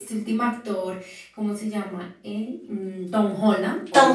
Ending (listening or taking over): listening